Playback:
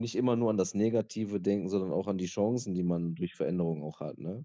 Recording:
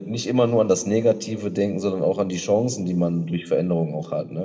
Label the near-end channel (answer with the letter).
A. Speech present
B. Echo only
B